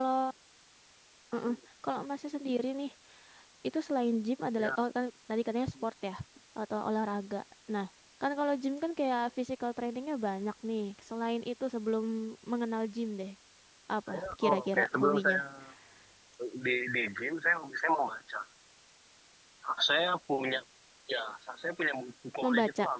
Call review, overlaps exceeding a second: present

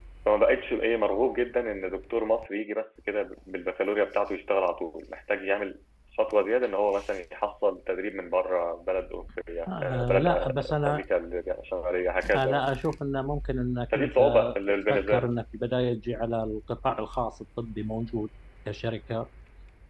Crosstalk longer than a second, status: present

